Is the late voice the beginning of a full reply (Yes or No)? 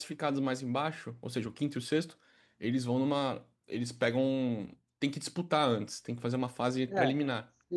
Yes